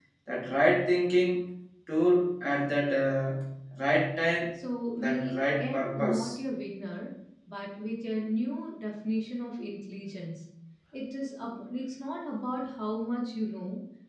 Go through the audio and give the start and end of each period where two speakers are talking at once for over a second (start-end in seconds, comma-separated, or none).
5.0-6.2